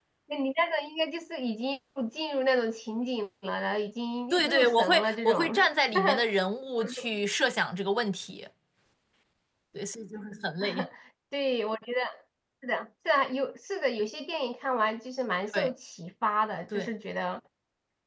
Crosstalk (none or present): present